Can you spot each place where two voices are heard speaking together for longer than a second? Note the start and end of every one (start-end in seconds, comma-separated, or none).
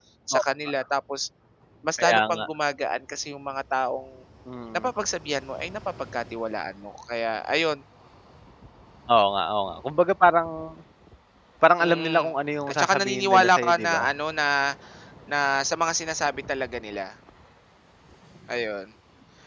12.7-14.1